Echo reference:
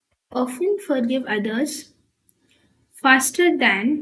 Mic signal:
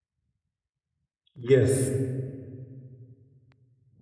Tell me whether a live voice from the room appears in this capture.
Yes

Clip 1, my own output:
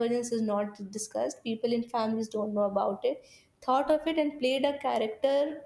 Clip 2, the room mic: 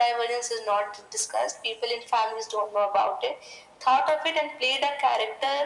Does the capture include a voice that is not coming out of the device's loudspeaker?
No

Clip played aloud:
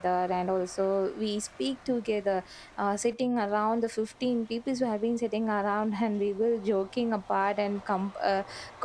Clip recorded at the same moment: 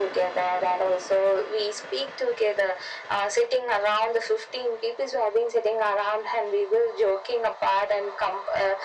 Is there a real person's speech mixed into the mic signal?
No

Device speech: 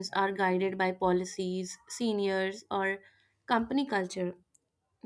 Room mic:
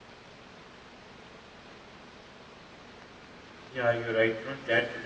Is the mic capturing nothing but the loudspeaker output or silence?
No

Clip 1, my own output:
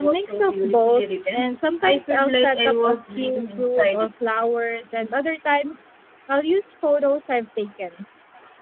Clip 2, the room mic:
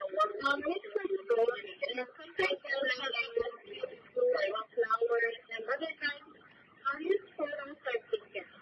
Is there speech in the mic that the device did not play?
No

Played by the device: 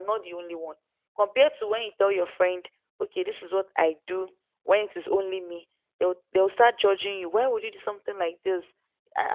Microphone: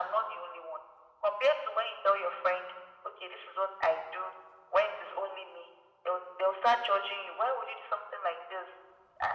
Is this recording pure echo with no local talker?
Yes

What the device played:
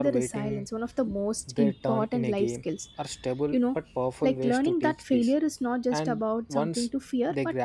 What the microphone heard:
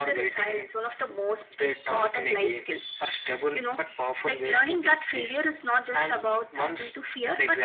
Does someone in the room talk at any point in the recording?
No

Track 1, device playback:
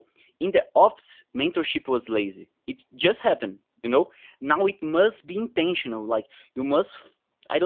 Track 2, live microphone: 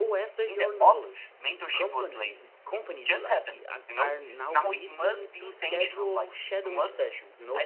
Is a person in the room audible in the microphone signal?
Yes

